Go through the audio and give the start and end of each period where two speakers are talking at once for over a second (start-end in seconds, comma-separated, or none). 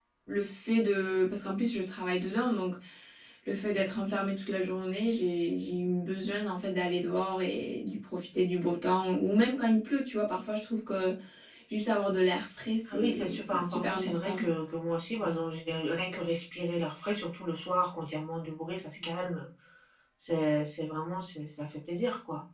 12.9-14.4